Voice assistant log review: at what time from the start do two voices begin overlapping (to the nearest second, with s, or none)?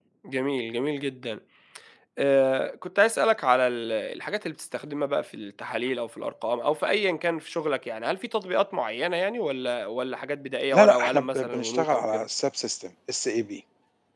11 s